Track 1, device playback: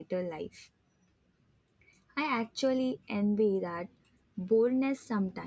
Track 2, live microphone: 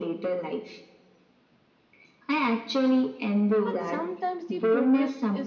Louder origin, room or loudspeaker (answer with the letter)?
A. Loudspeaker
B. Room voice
A